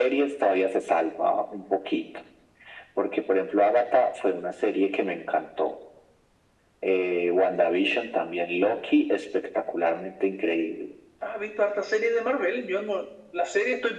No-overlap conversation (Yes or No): Yes